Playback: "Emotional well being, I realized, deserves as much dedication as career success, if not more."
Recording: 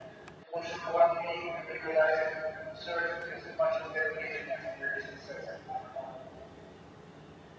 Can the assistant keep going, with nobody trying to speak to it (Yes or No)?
Yes